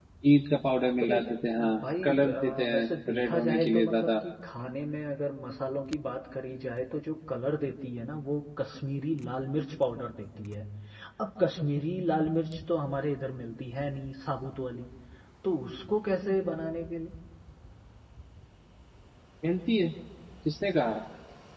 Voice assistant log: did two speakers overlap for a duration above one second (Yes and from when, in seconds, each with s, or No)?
Yes, from 1.0 s